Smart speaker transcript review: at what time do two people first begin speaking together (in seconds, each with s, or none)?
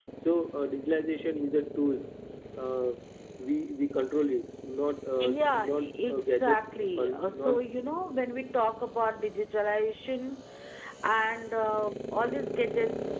5.2 s